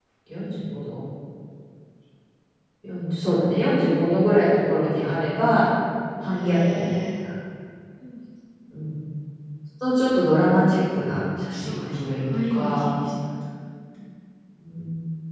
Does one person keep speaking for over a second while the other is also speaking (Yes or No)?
Yes